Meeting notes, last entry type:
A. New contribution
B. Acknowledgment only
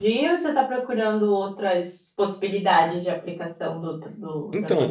A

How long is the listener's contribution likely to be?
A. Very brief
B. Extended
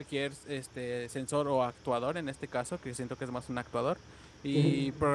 A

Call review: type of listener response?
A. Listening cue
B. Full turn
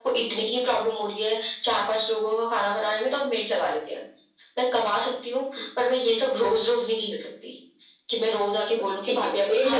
B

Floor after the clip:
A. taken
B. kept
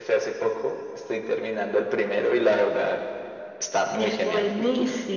A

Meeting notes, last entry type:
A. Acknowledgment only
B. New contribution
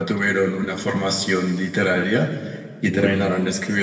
A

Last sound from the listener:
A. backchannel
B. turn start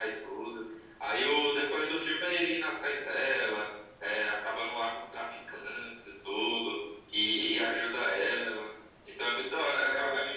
A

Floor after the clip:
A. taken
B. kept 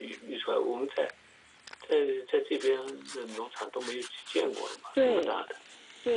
A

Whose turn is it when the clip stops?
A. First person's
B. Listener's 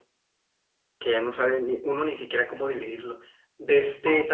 A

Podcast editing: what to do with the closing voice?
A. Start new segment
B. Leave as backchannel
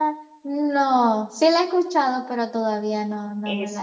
A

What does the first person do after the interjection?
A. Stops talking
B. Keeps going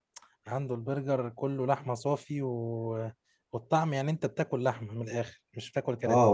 A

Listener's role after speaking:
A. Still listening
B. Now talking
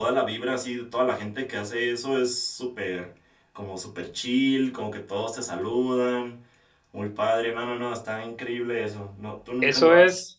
B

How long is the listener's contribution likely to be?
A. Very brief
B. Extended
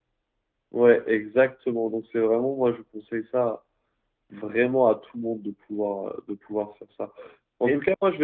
A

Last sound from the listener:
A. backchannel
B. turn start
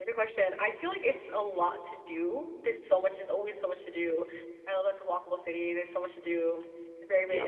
A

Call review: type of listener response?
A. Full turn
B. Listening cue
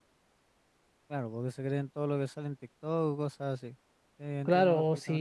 A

